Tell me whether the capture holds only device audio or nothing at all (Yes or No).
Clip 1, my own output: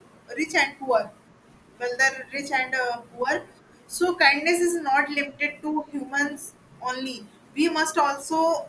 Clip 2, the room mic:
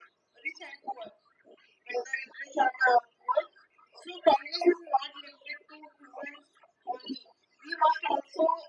Yes